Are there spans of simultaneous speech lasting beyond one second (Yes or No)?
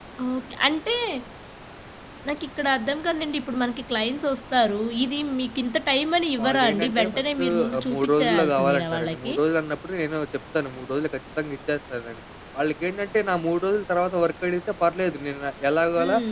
Yes